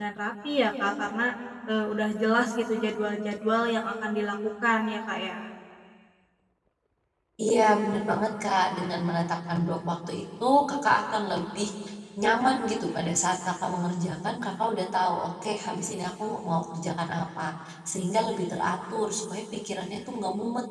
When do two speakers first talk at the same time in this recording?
none

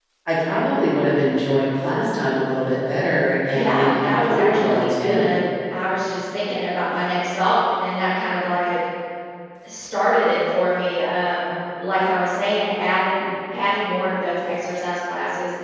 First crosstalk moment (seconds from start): 3.5 s

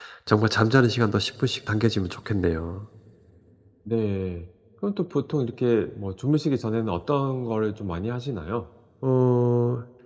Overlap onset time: none

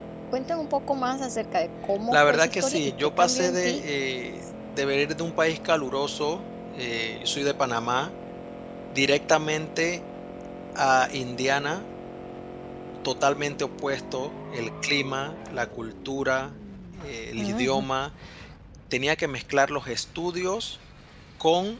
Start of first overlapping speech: 2.1 s

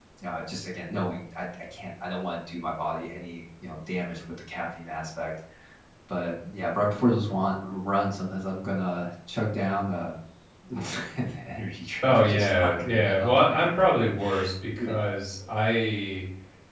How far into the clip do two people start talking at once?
12.0 s

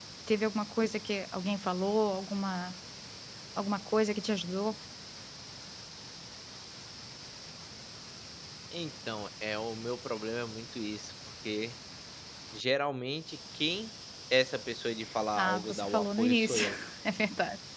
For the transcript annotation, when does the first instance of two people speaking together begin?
15.4 s

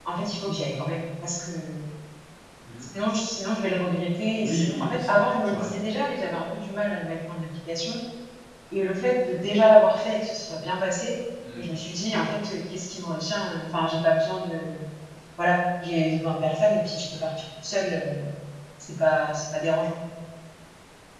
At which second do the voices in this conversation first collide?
4.3 s

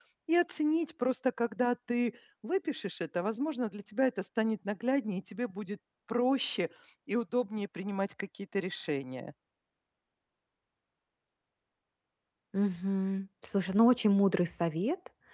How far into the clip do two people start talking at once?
none

